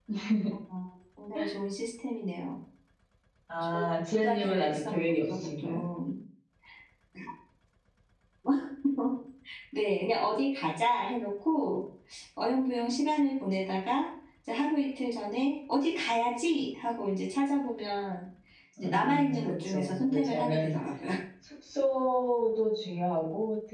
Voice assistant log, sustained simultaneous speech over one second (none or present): present